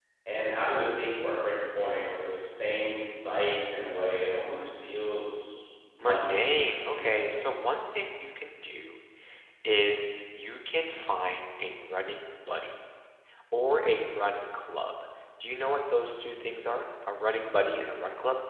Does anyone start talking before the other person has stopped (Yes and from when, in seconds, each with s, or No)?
Yes, from 6.0 s